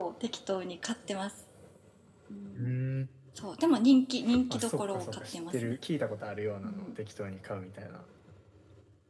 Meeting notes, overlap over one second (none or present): present